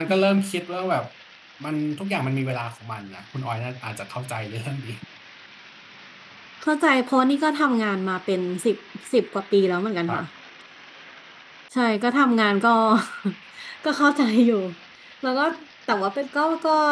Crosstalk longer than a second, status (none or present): none